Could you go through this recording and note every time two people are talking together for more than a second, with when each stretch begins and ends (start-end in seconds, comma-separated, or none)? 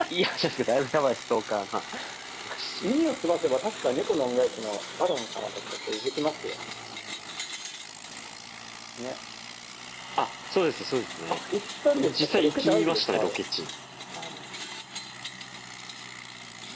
12.0-13.4